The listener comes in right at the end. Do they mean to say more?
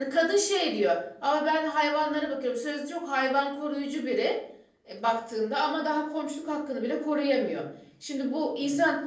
No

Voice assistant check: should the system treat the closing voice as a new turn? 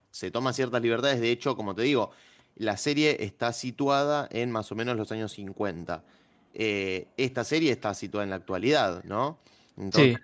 No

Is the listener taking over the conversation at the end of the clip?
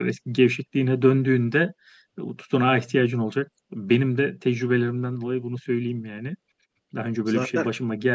No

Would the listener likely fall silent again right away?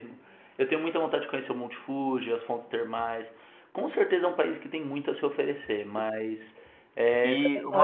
No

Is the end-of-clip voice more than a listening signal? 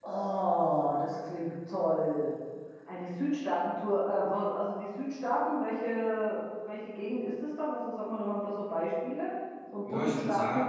Yes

